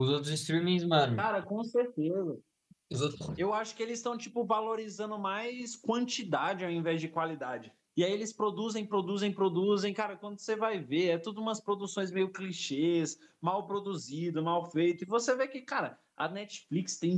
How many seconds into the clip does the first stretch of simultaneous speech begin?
none

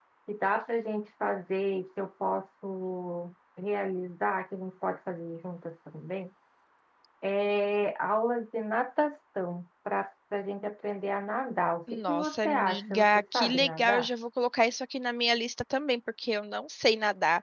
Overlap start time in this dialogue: 11.9 s

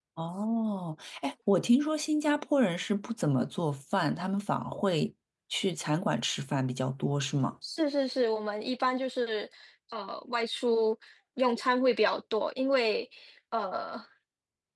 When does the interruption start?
none

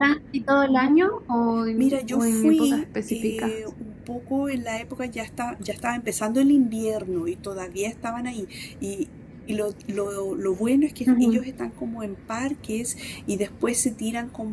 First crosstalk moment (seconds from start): 1.8 s

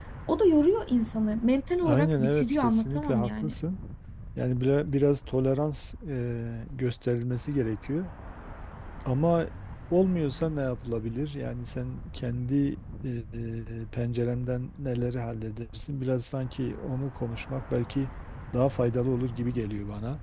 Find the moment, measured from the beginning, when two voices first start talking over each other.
1.8 s

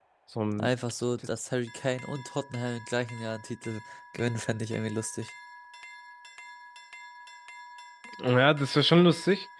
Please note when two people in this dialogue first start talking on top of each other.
none

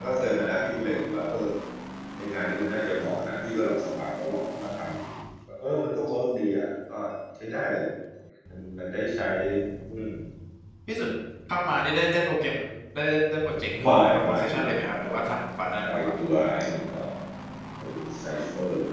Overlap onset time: 13.8 s

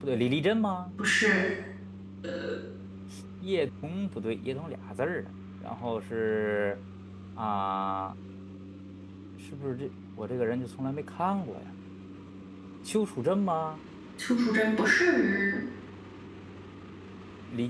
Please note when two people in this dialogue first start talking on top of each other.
none

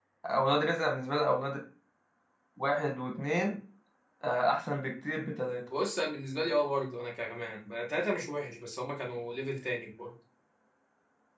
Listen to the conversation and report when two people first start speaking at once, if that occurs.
none

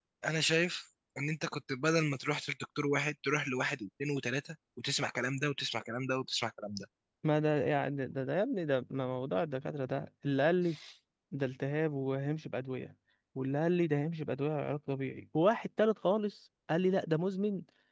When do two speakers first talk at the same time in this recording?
none

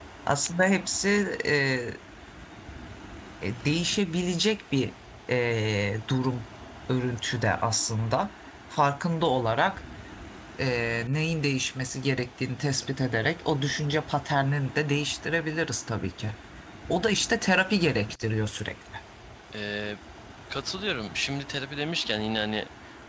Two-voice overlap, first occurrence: none

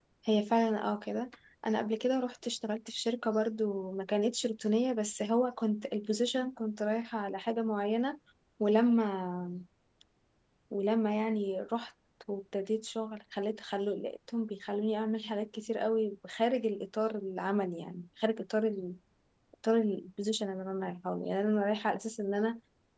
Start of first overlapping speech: none

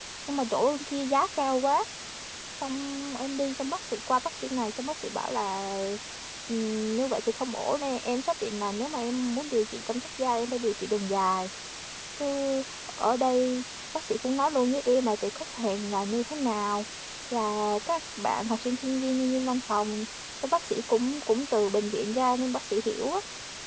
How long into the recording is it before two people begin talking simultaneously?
none

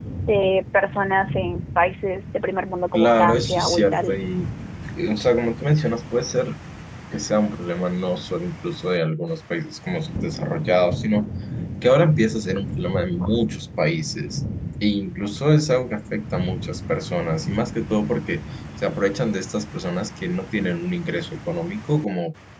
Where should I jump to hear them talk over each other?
2.9 s

